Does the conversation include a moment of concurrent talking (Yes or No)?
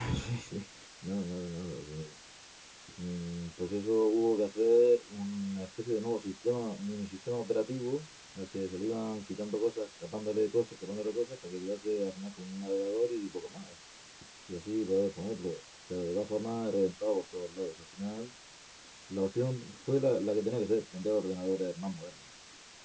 No